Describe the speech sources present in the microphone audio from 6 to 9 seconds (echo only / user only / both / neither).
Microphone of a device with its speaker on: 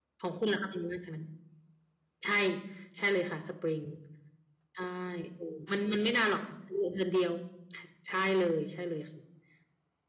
user only